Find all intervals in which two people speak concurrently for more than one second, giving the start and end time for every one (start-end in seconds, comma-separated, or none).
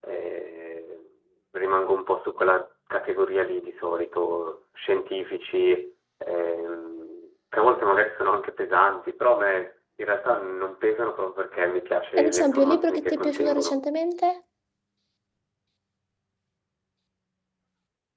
12.2-13.8